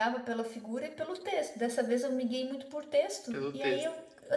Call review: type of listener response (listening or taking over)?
listening